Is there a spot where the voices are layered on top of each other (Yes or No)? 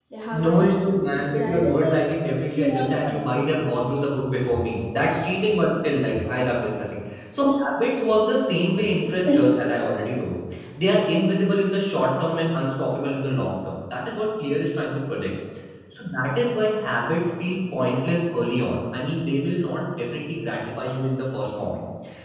Yes